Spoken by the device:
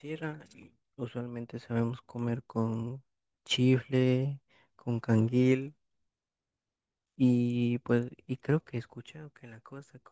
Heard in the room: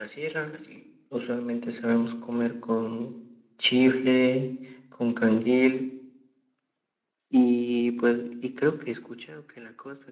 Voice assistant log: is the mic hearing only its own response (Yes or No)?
Yes